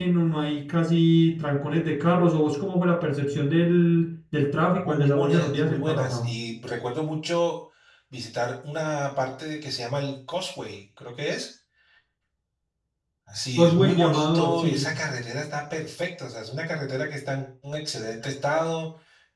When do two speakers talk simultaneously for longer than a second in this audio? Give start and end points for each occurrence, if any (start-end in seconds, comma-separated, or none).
4.8-6.3, 13.6-14.9